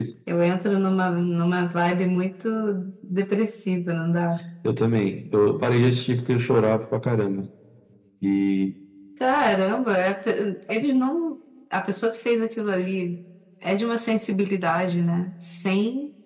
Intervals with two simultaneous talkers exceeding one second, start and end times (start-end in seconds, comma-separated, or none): none